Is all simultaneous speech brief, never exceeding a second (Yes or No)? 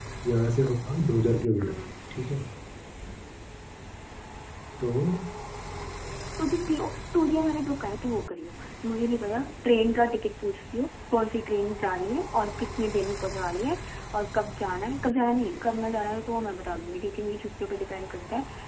Yes